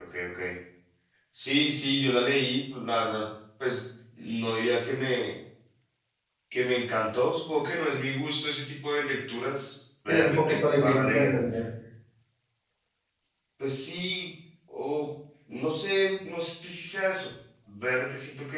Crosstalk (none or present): present